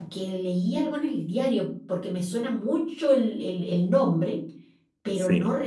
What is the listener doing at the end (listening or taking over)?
listening